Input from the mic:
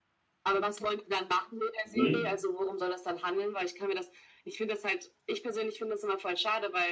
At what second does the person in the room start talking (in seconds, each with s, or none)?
1.8 s